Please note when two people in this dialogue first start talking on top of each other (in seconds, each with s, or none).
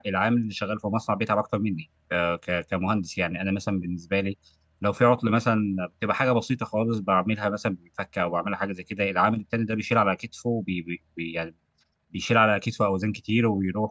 none